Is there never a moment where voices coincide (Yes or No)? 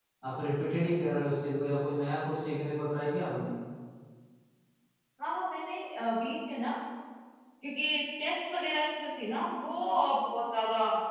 Yes